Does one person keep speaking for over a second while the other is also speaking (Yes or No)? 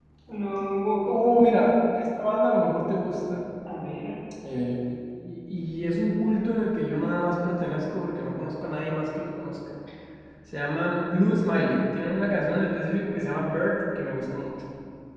No